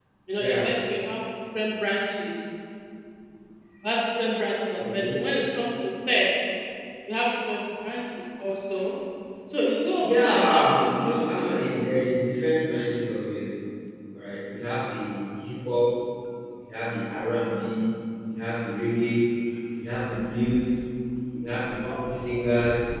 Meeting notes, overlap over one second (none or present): present